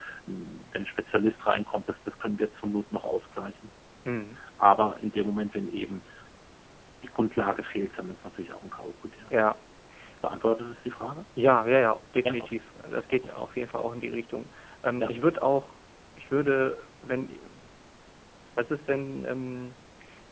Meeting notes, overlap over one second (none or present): none